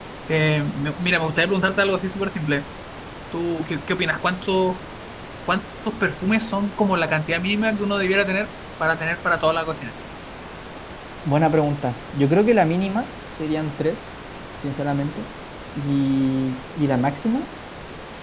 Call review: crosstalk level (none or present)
none